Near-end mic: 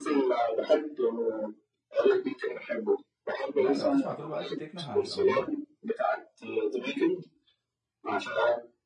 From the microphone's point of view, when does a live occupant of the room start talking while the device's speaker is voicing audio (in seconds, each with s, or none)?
3.4 s